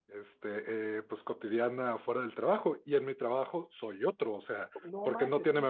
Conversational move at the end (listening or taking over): taking over